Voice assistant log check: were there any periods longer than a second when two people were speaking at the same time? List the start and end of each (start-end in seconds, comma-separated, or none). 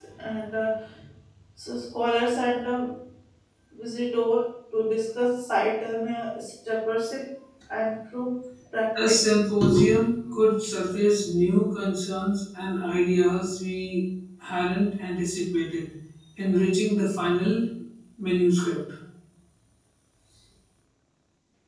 none